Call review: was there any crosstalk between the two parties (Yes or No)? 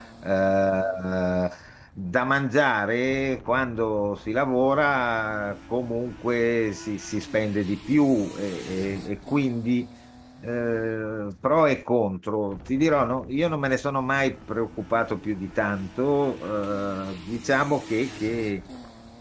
No